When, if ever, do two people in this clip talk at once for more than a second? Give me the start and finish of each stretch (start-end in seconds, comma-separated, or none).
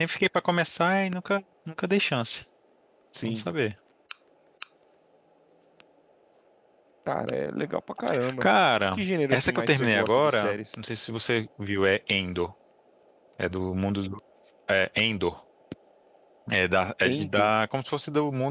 8.9-10.6